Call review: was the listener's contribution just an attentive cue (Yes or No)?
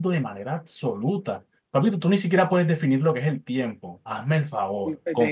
No